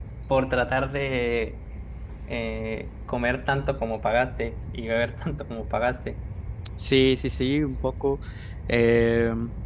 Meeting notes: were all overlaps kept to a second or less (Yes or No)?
Yes